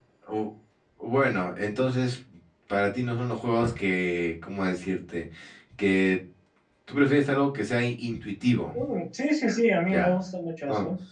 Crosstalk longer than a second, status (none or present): none